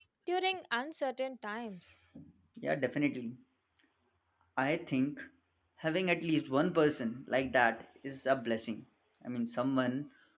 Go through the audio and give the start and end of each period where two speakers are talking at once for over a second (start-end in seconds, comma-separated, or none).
none